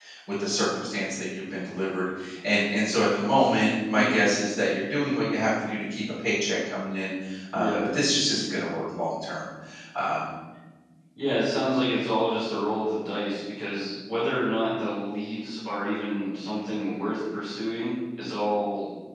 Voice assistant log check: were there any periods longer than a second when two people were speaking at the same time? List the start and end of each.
none

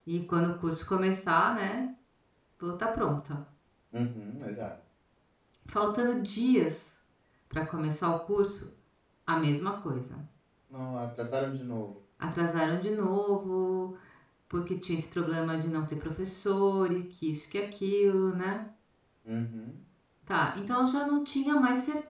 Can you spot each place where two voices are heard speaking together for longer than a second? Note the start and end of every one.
none

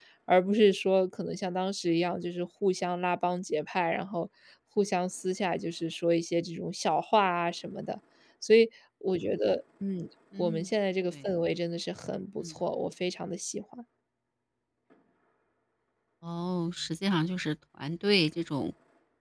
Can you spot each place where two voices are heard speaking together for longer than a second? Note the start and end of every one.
none

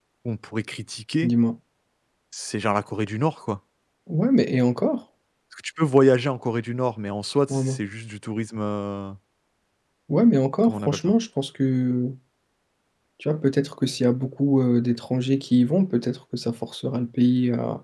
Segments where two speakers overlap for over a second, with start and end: none

